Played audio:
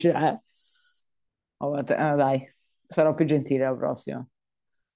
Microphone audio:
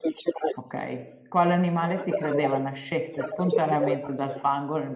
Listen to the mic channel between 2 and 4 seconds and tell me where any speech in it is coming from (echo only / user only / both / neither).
both